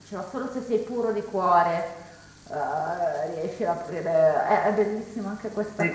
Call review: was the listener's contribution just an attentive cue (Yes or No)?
No